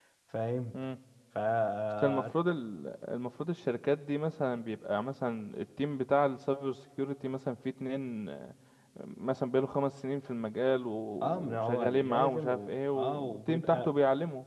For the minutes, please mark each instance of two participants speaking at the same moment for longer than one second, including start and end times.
11.2-13.9

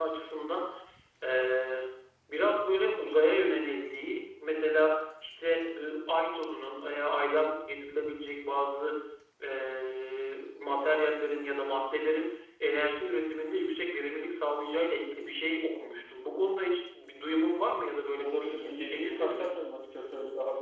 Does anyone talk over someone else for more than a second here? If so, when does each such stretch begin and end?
18.2-19.5

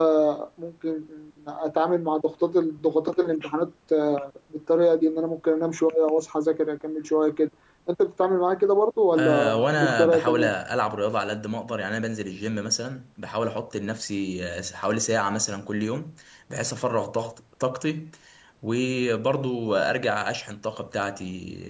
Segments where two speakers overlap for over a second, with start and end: 9.2-10.5

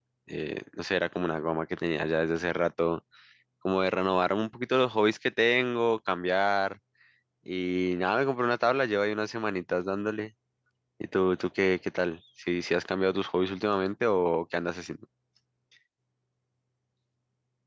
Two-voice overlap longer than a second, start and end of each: none

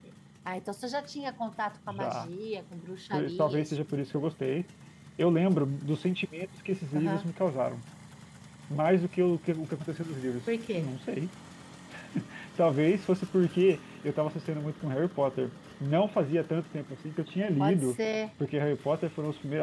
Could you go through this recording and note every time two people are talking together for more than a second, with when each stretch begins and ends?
3.1-4.5

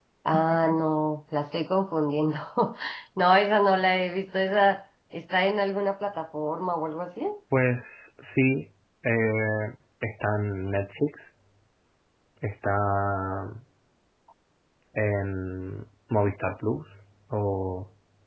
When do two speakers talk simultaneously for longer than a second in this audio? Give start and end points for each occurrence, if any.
none

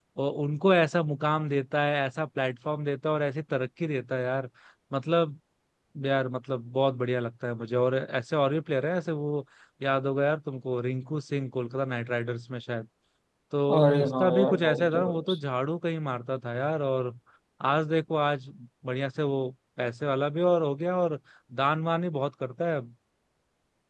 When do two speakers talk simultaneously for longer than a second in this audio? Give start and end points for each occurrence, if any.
13.8-15.4

